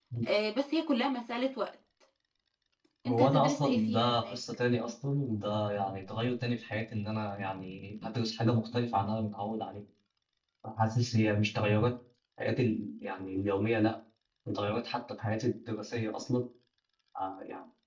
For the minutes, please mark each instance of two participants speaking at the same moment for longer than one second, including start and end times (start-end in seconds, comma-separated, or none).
3.1-4.4